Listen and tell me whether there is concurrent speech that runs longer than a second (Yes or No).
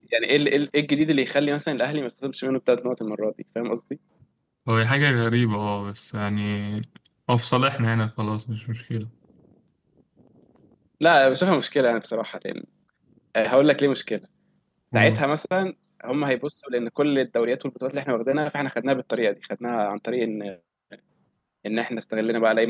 No